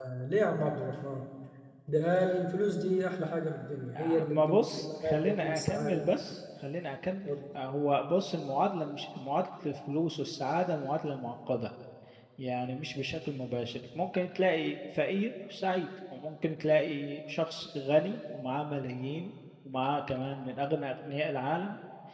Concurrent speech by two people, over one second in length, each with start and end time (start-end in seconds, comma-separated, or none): 4.0-6.1